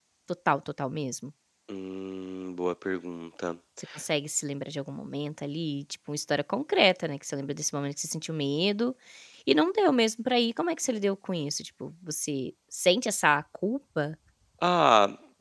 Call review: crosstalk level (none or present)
none